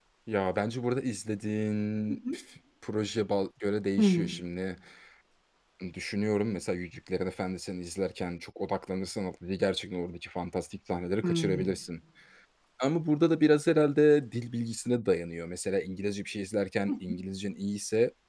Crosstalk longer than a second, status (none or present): none